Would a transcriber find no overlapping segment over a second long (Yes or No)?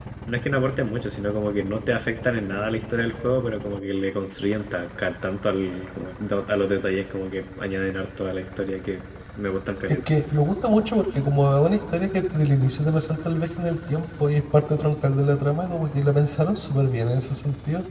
Yes